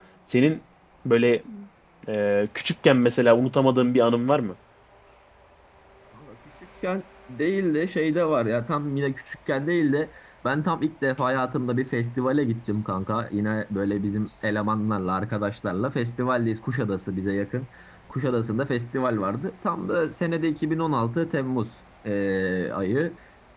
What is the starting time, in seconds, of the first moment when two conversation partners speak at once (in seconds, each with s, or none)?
none